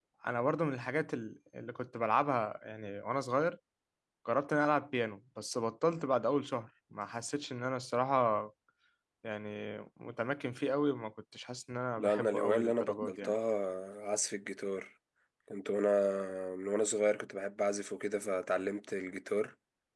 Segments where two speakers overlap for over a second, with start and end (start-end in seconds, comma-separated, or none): 12.0-13.3